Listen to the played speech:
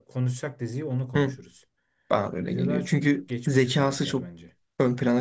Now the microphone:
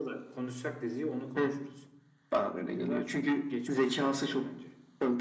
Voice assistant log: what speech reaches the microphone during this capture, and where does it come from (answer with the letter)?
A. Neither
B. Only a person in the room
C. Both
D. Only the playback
D